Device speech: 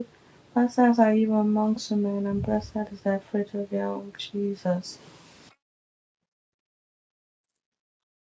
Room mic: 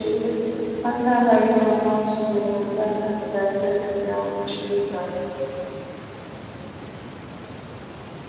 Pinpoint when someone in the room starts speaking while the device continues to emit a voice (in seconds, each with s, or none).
none